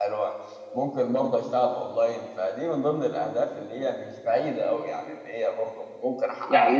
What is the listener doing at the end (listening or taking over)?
taking over